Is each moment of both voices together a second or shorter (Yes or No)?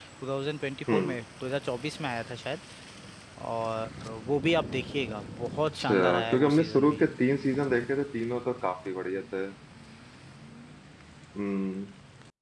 No